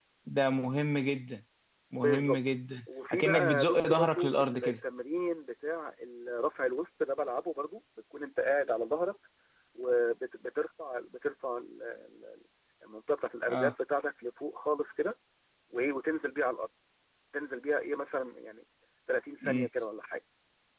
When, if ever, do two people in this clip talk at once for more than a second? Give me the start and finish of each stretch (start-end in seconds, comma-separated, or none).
3.1-4.7